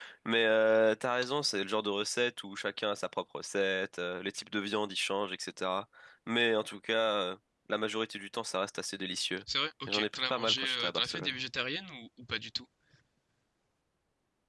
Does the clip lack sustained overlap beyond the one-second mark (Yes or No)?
No